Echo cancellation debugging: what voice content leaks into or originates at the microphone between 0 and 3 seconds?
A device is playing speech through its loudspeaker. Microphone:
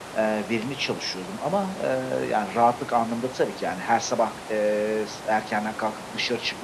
echo only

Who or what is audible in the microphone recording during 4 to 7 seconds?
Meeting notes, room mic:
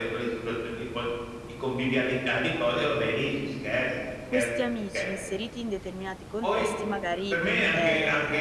both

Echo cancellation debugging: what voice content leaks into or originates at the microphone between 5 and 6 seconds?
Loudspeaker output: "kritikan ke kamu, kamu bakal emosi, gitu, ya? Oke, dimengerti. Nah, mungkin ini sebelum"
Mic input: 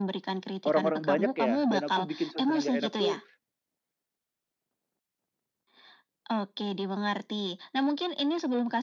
neither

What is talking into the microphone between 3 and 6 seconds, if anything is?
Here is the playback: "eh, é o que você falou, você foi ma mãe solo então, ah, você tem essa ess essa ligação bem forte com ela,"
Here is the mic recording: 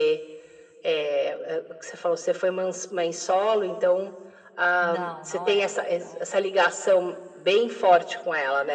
both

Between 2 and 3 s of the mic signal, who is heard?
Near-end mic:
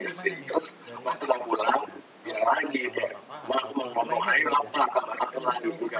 both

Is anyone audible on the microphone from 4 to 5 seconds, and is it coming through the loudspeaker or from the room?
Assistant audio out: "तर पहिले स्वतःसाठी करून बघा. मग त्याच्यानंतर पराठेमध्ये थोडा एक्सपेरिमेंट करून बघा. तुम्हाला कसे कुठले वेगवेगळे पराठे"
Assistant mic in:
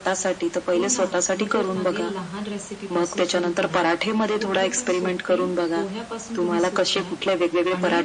both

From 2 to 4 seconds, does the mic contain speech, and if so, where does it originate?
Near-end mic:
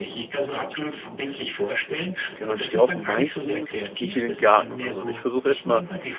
both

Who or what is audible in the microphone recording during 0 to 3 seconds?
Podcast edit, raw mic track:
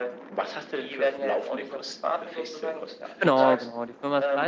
echo only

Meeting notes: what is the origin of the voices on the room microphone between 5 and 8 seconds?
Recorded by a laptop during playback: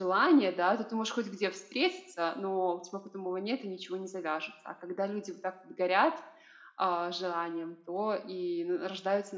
user only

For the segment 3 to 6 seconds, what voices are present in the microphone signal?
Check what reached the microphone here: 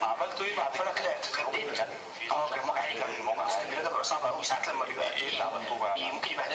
both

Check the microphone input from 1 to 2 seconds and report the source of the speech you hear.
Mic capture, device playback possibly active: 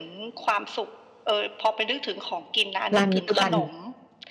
echo only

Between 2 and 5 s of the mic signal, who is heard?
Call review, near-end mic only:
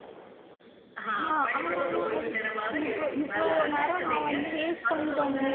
both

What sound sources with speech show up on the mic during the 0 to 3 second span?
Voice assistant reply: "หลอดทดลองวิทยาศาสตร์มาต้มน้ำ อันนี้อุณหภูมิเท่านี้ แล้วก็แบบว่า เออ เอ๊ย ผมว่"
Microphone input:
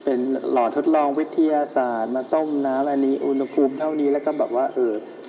echo only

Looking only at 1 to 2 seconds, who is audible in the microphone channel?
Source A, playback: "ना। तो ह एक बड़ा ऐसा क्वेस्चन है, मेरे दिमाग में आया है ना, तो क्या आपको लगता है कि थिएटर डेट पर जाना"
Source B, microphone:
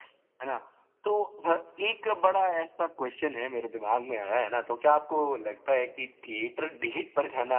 echo only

